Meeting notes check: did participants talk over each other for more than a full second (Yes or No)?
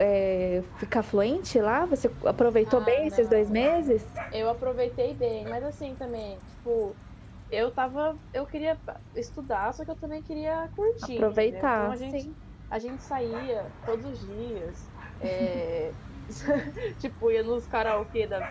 Yes